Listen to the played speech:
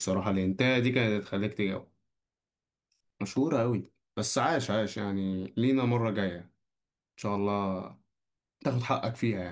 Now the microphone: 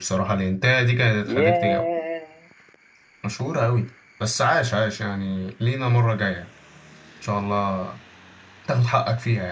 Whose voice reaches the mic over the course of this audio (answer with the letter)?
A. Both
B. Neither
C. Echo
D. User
A